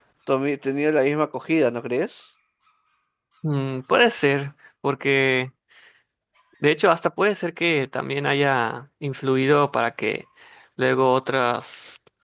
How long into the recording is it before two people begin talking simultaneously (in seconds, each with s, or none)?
none